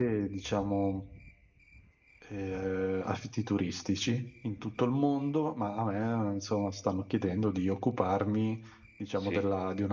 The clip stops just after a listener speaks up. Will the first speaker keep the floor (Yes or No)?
Yes